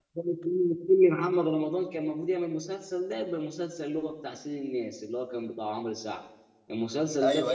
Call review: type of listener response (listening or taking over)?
taking over